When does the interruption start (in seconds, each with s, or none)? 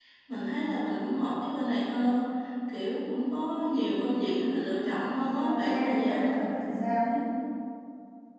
5.2 s